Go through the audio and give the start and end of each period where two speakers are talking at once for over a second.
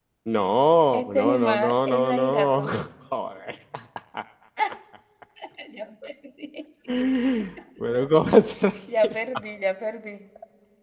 0.9-2.6

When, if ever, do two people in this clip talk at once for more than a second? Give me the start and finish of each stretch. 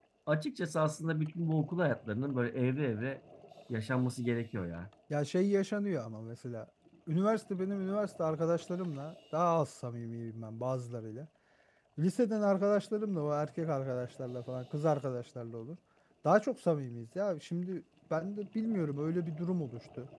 none

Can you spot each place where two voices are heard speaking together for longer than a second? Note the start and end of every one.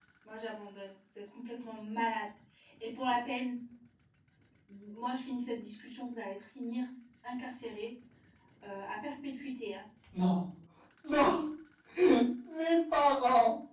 none

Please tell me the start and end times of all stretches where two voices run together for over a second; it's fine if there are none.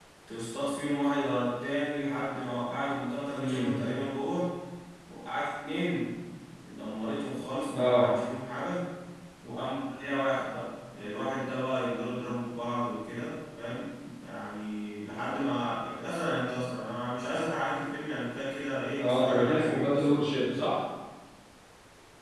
19.0-20.3

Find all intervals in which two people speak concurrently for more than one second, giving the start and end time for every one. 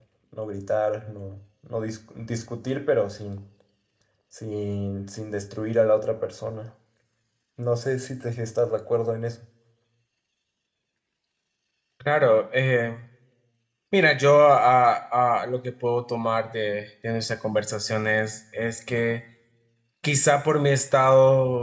none

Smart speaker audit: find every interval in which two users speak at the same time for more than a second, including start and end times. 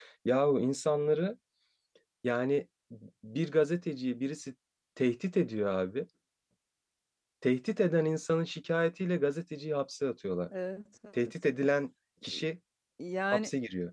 none

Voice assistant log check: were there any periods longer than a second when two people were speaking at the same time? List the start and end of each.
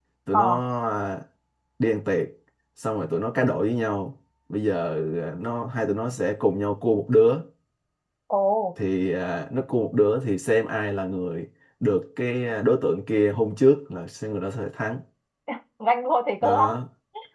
none

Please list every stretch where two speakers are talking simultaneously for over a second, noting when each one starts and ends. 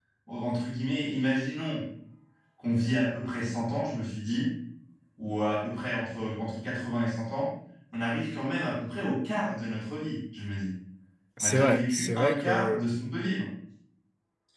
11.4-12.9

